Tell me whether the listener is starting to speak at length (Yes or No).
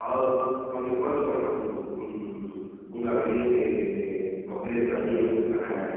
Yes